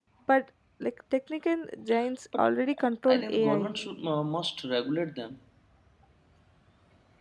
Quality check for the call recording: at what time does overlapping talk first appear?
2.4 s

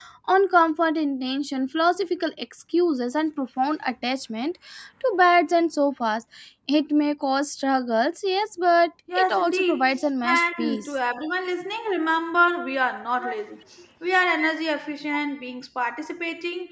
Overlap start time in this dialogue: 9.1 s

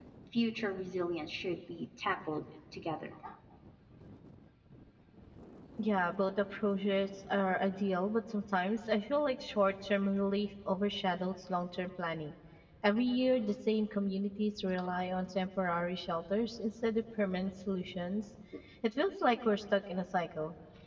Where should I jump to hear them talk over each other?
none

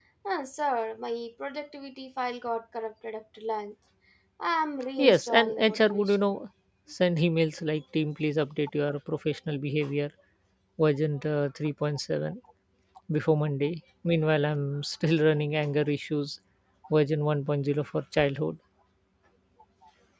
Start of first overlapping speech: 5.0 s

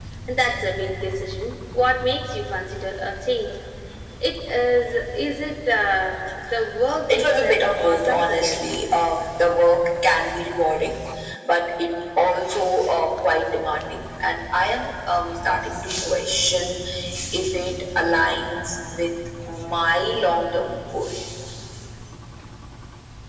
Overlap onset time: 6.9 s

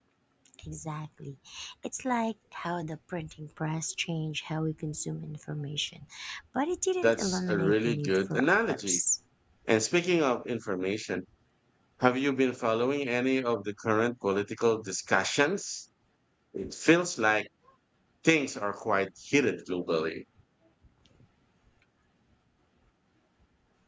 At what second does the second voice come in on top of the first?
7.0 s

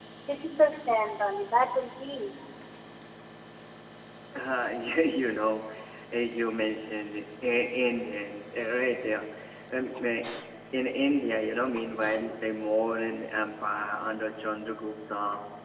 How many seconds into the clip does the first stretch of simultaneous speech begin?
none

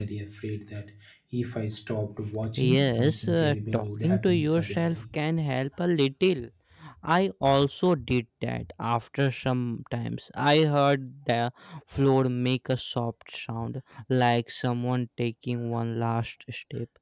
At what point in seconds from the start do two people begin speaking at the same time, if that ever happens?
2.6 s

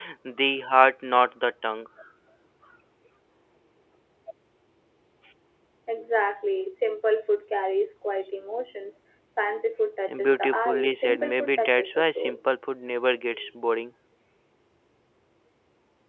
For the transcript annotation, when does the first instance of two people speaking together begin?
10.1 s

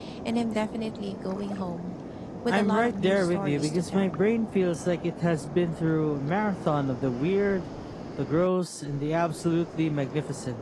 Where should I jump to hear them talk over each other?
2.5 s

